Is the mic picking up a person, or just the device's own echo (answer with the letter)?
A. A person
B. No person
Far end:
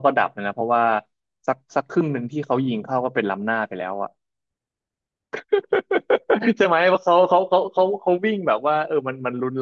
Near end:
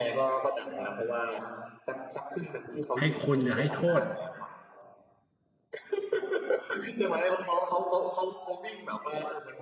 A